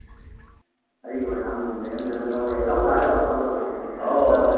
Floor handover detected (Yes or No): Yes